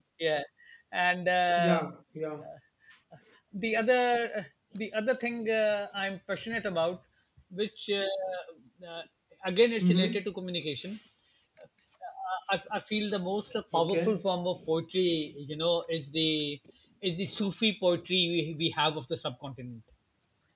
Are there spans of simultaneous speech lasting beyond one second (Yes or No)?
No